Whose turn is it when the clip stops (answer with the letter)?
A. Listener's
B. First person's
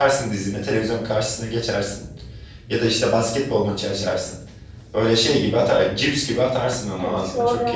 A